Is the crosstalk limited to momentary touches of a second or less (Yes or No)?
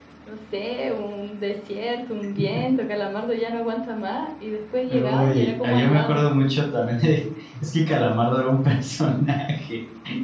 No